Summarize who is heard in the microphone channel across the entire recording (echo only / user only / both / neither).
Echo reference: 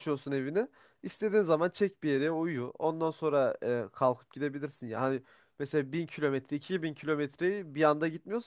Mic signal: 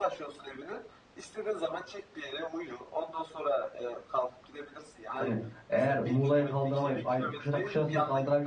both